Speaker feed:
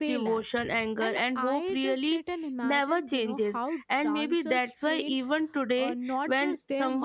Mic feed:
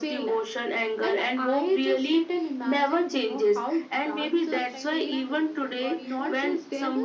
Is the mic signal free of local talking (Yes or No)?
No